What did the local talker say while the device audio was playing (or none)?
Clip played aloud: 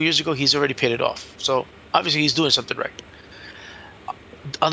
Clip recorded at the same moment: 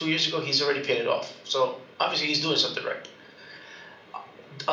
none